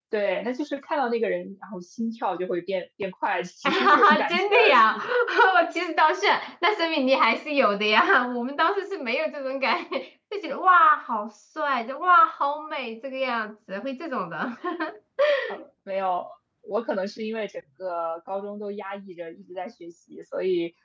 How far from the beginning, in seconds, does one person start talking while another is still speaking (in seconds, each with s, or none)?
3.6 s